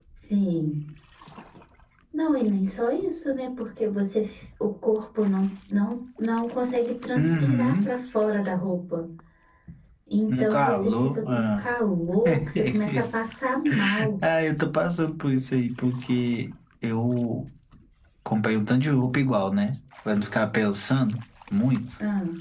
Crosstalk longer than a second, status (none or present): present